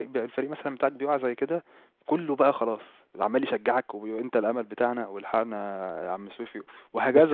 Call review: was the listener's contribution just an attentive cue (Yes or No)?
No